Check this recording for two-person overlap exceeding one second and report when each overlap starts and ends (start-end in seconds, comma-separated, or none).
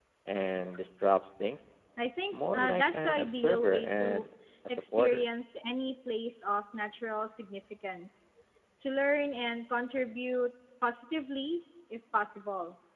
2.3-4.2